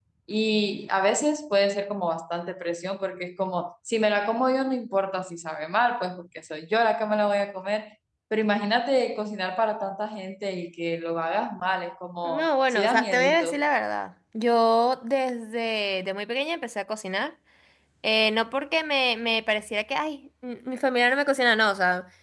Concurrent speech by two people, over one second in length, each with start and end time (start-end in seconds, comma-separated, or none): 12.2-13.6